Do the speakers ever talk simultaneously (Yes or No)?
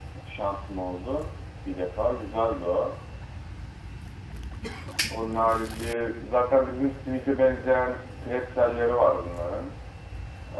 No